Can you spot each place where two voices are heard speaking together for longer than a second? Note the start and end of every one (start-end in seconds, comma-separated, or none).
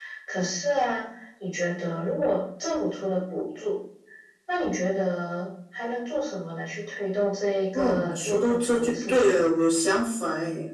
7.7-9.3